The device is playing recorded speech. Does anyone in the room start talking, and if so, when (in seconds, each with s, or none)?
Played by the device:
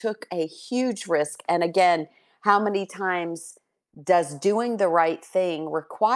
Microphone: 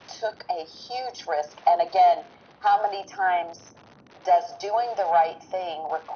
none